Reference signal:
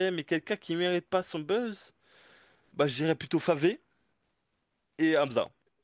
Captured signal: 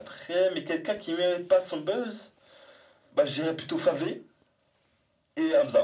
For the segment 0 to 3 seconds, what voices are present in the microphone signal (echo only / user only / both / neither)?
echo only